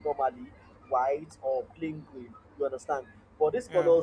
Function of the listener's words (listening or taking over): listening